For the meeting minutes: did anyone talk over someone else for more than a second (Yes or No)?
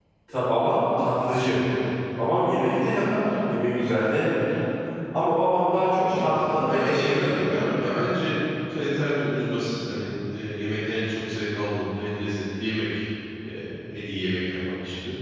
Yes